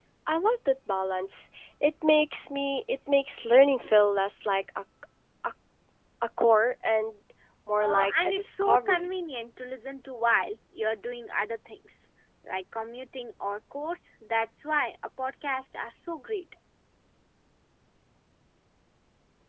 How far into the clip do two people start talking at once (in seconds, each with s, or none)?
7.8 s